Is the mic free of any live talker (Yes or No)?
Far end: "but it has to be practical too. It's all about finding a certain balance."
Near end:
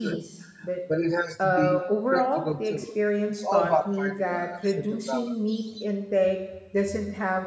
No